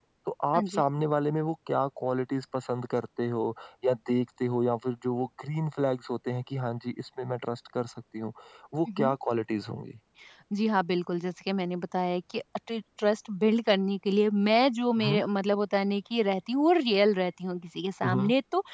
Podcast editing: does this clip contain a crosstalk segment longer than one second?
No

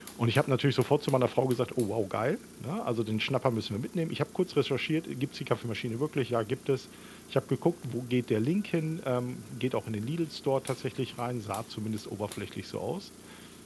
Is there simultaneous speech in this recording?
No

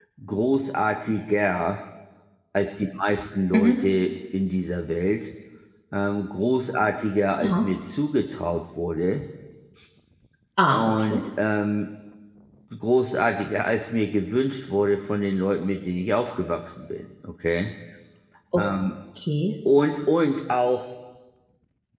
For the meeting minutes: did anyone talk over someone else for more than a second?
No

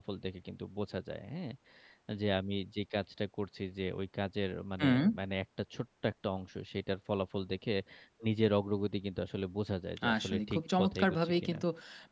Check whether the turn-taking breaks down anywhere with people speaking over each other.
Yes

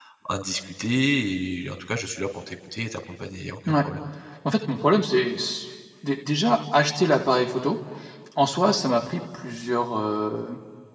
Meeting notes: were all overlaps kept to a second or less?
Yes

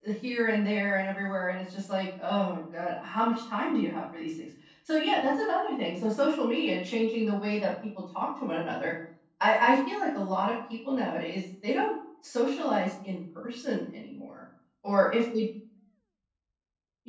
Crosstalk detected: No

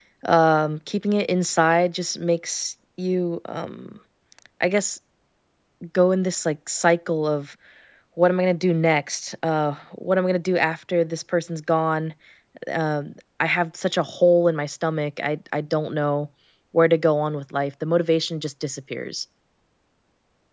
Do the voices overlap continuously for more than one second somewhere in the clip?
No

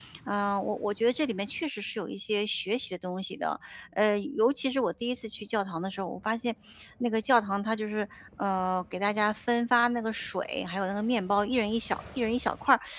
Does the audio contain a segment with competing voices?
No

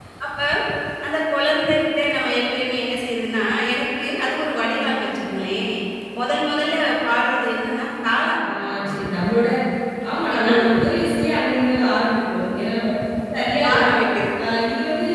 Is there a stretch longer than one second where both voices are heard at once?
No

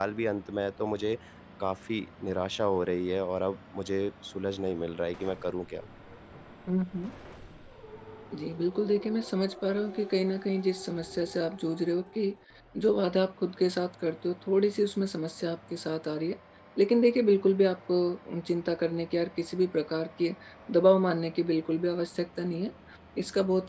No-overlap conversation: Yes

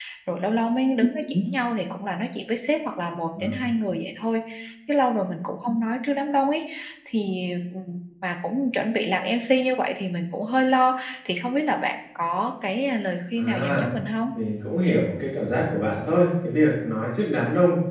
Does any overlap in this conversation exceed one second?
No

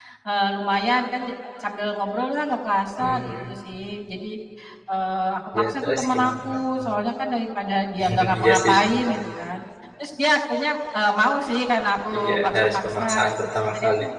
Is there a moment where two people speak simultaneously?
Yes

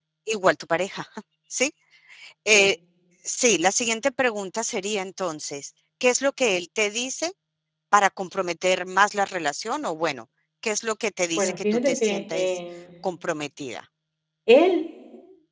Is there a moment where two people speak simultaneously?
Yes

